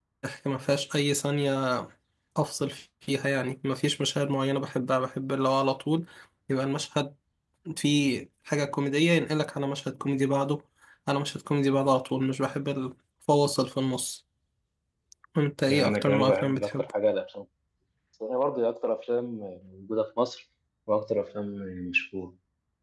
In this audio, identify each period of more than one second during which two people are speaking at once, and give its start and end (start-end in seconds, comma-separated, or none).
15.7-16.9